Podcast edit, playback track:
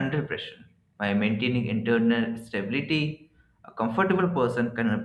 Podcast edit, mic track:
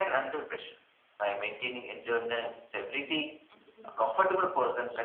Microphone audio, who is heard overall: both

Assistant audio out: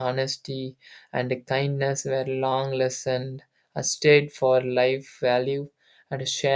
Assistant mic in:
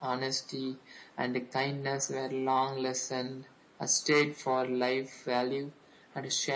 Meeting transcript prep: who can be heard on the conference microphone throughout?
echo only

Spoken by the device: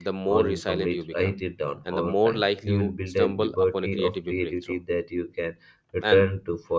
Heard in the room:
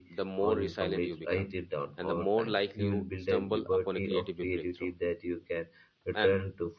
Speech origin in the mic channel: echo only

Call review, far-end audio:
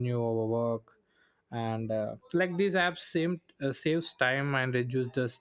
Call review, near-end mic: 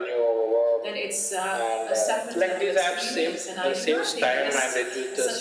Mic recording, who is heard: both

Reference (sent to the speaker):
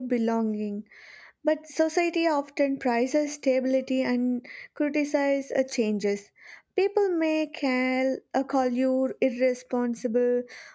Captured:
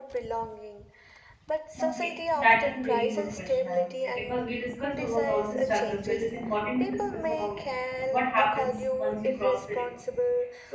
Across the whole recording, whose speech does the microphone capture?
both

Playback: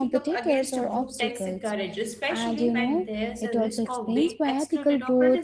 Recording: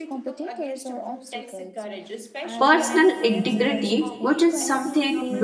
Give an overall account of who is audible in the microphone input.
both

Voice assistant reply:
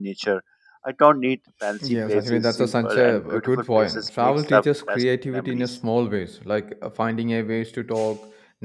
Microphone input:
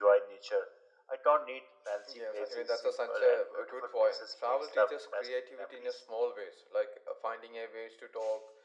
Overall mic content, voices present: echo only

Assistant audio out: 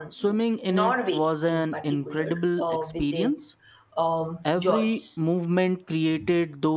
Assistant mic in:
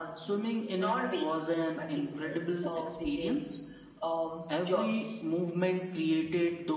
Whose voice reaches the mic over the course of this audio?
echo only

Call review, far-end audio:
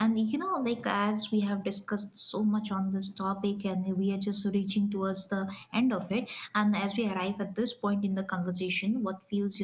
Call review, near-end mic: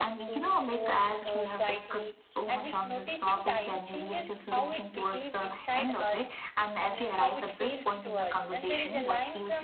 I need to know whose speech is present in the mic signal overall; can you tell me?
both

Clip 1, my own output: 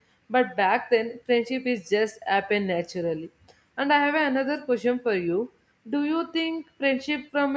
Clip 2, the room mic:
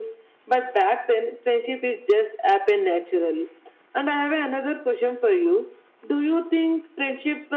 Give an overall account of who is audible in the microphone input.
echo only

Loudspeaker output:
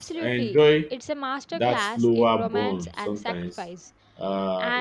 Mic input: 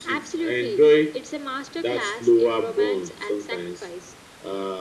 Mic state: echo only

